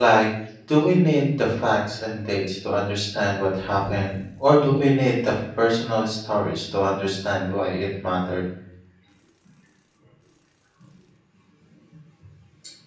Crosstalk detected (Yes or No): No